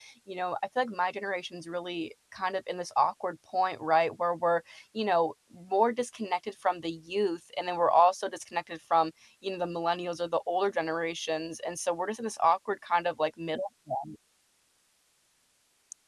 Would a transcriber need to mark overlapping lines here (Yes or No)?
No